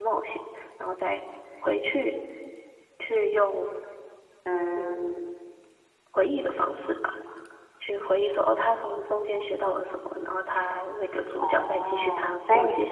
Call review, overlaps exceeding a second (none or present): present